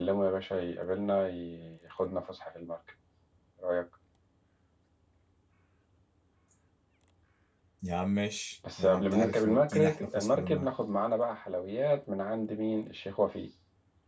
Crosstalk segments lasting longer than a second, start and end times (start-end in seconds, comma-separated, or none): 8.8-10.7